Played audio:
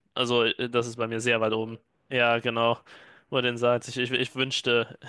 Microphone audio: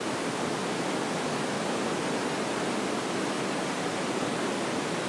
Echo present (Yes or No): No